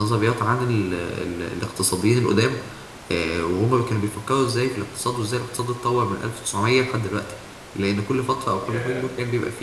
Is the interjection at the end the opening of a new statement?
No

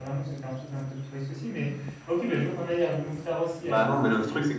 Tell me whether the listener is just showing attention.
No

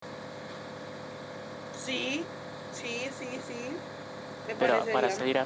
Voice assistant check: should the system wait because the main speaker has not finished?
No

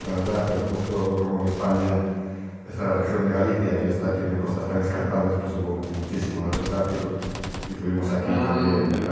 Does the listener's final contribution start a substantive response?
No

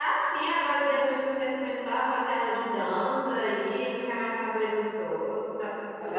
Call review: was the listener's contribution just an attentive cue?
No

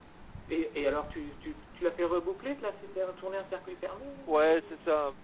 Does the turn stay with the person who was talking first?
No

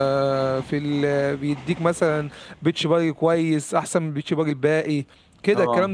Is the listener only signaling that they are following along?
Yes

